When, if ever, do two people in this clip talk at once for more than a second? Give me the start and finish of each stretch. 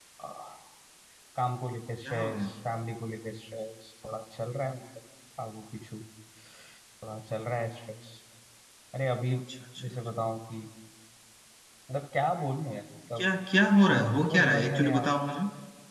13.9-15.1

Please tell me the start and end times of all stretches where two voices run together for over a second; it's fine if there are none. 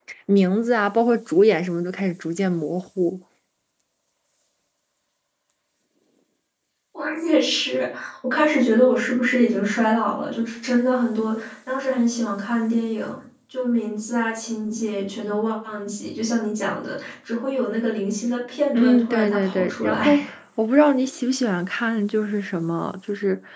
18.7-20.3

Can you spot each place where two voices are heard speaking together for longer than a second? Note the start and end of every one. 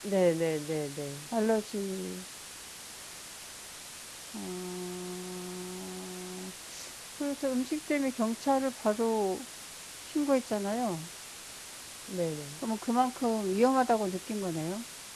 none

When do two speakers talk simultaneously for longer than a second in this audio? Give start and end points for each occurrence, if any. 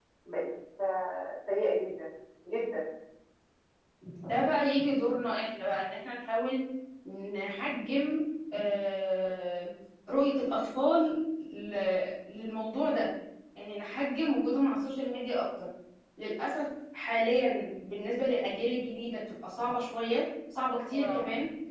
none

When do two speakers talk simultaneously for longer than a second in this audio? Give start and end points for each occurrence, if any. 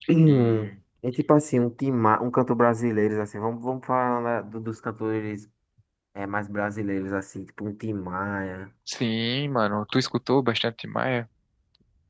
none

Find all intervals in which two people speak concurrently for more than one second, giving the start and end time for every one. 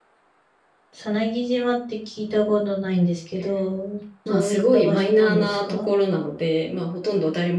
4.3-5.9

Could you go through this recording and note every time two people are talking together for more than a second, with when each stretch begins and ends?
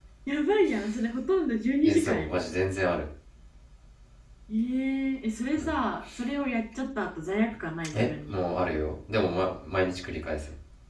none

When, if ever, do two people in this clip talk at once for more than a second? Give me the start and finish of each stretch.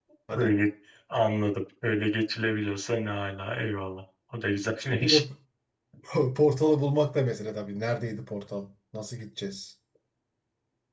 none

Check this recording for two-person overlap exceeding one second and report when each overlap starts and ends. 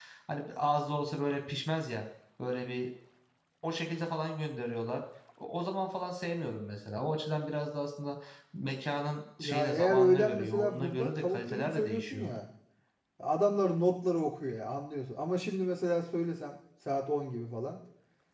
9.4-12.3

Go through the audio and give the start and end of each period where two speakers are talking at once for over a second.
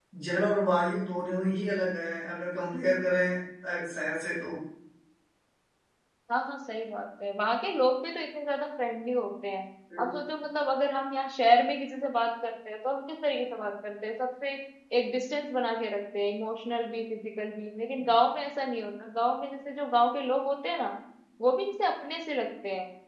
none

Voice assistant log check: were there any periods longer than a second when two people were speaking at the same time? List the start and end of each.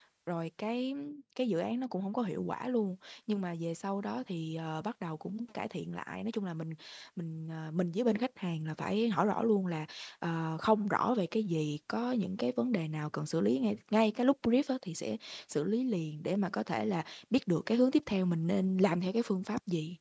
none

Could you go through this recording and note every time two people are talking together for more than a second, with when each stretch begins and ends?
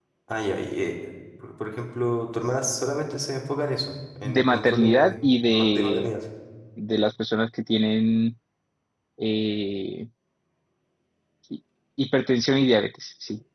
4.2-6.2

